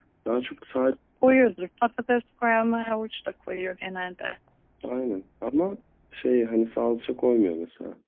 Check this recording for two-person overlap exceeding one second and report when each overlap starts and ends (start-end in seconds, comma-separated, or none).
none